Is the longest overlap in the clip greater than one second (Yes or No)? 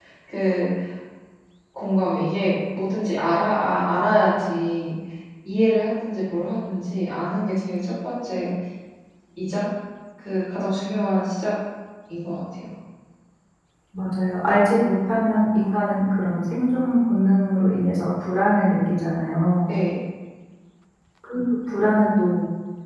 No